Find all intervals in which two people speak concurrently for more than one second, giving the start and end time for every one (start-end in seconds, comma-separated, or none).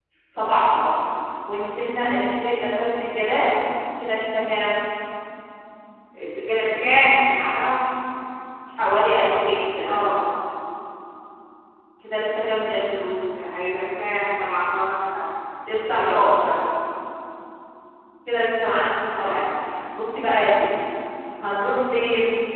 none